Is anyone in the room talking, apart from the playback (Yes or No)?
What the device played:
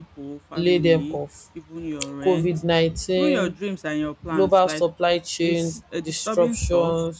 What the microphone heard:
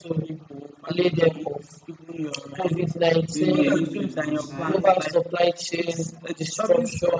Yes